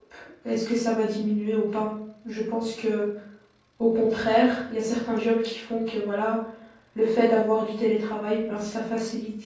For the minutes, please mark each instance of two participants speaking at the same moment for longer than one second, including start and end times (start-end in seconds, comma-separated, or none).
none